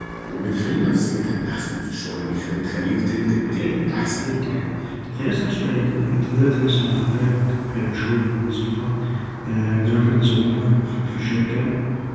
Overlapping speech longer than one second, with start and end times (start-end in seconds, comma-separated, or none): 3.4-4.7